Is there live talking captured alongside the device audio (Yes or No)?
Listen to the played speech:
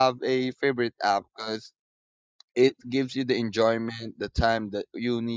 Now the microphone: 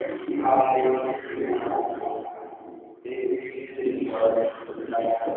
No